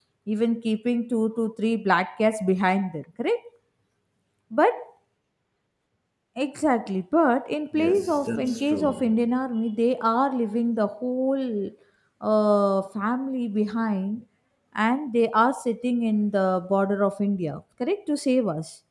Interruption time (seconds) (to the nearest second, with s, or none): 8 s